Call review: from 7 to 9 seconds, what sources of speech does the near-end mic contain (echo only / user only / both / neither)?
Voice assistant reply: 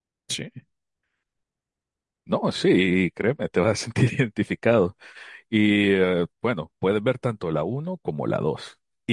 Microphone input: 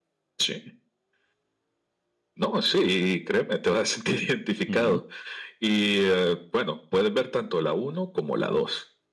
echo only